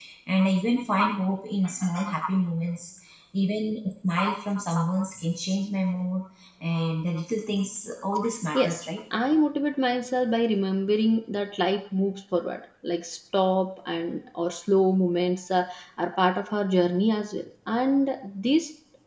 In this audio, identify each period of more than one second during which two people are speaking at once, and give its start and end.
none

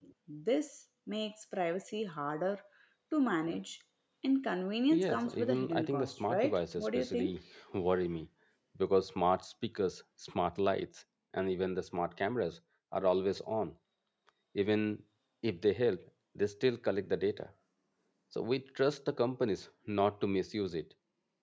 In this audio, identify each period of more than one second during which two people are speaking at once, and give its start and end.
4.9-7.4

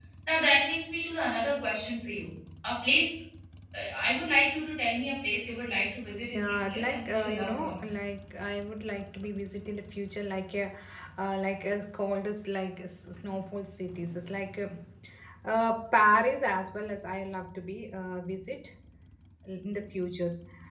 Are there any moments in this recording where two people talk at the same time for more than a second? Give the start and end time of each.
6.3-7.8

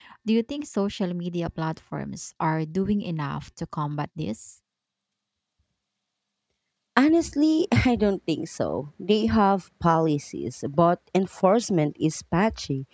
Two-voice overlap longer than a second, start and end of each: none

